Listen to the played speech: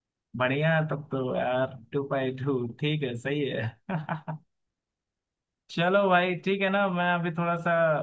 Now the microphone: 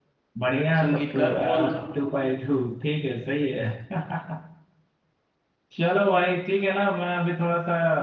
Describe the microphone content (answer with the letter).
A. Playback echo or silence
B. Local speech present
B